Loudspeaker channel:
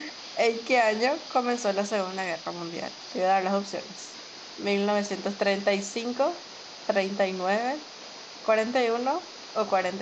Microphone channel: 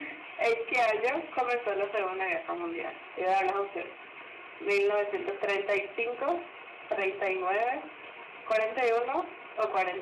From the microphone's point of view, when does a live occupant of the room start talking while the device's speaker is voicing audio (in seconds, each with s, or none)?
none